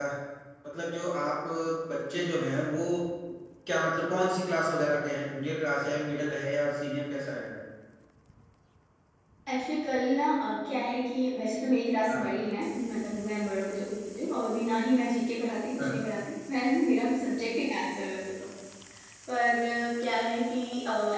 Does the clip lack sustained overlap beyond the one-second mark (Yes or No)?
Yes